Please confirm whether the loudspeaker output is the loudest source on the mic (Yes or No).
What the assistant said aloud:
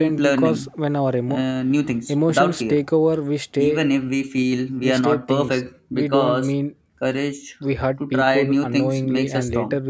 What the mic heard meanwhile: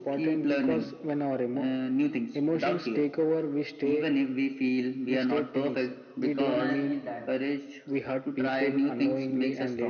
Yes